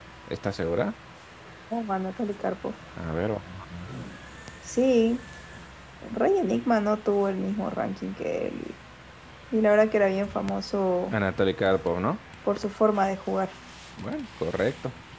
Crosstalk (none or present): none